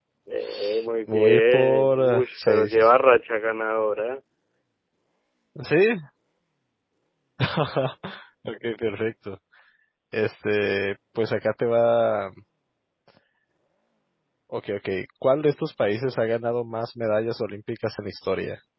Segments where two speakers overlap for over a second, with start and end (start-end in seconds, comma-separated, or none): 1.1-2.9